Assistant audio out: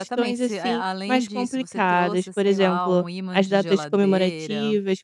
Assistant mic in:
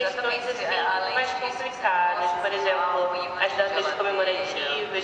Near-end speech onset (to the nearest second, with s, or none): none